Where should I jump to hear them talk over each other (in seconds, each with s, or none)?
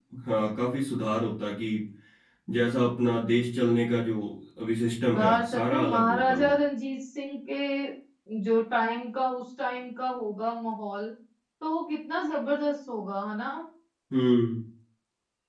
5.1 s